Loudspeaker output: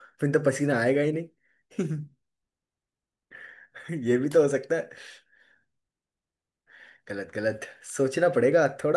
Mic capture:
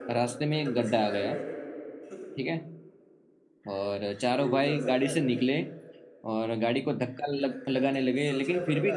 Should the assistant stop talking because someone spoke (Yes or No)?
Yes